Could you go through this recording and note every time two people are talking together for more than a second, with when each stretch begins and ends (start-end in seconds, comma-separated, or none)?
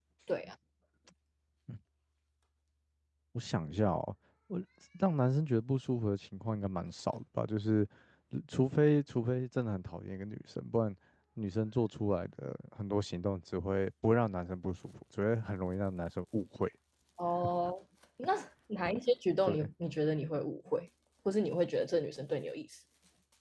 none